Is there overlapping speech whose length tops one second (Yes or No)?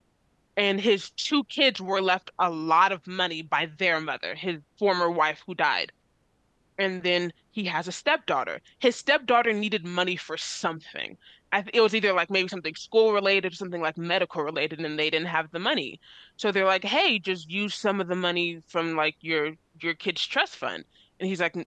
No